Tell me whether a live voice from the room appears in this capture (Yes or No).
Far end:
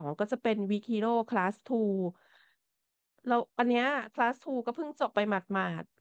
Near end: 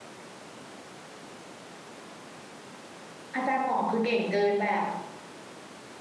Yes